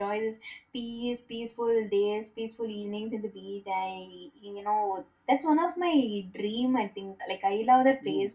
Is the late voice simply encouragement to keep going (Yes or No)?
No